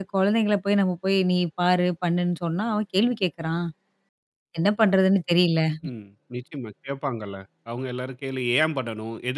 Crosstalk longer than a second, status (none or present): none